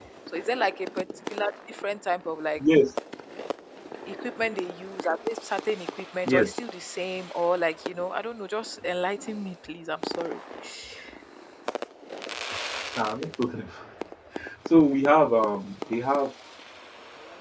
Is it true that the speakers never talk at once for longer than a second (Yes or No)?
Yes